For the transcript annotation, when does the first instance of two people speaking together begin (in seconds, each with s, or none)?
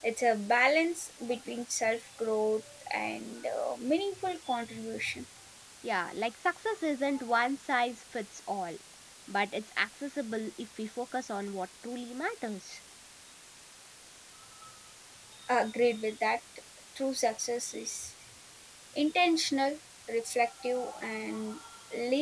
none